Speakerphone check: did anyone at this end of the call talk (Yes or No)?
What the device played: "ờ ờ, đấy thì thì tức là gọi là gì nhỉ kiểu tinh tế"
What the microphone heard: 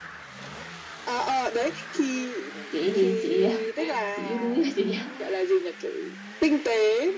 Yes